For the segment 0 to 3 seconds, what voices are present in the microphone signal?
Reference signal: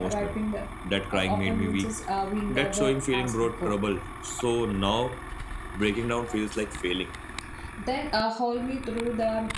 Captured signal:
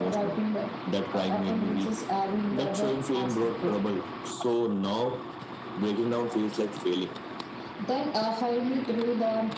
echo only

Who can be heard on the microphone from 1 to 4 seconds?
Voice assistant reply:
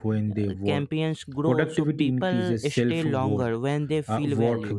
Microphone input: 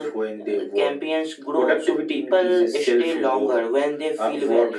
echo only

